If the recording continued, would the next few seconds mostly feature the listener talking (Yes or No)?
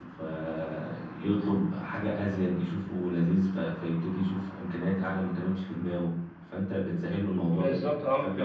Yes